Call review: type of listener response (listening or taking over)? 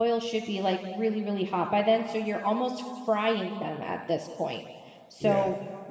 listening